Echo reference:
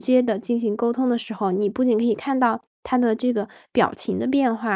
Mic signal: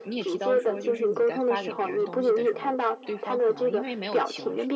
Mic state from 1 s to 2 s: both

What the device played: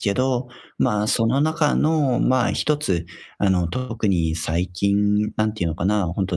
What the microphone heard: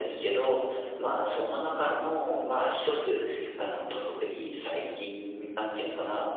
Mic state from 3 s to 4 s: echo only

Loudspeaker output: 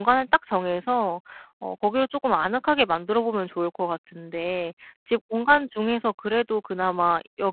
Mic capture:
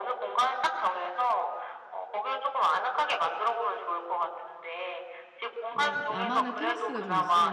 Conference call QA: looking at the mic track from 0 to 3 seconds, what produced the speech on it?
echo only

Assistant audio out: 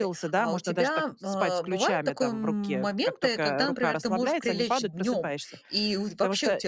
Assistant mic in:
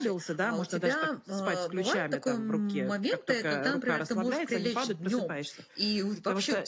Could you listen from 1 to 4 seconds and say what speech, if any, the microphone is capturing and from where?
echo only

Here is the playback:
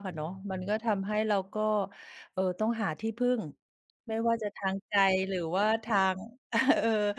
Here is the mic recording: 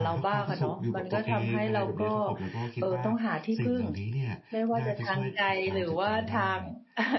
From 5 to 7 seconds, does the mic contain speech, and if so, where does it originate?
both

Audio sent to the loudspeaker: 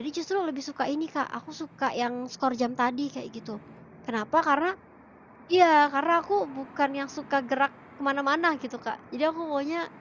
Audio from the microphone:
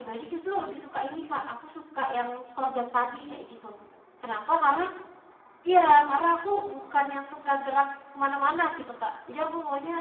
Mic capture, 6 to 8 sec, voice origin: echo only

